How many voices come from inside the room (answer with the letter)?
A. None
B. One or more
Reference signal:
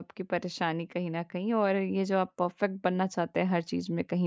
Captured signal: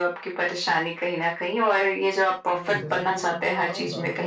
B